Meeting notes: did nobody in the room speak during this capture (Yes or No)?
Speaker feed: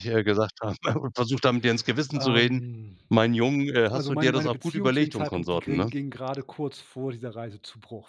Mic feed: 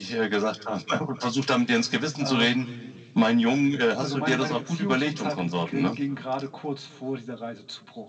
Yes